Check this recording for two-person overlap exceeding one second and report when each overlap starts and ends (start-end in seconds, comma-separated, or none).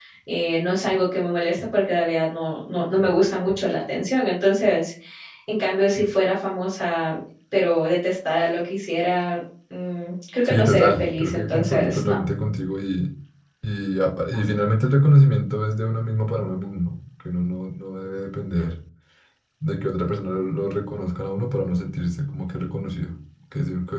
10.4-12.2